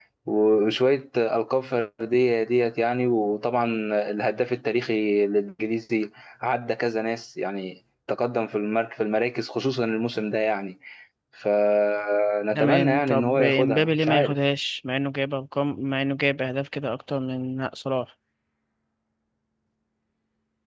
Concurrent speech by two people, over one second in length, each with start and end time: 12.6-14.4

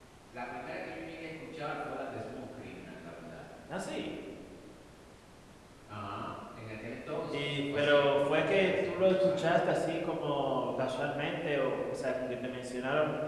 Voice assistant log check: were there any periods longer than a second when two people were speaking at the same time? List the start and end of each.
7.3-9.5

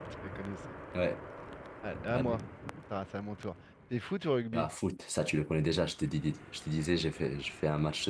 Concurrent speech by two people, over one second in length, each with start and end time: none

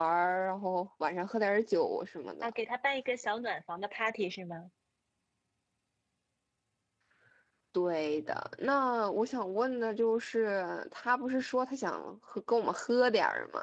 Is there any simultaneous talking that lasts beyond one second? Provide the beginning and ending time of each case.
none

